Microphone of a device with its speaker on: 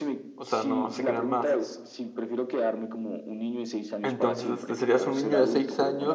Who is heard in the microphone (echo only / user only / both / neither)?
both